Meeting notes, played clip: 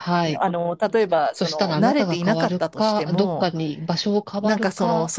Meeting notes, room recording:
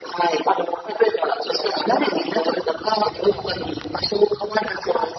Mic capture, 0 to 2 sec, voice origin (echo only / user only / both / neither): echo only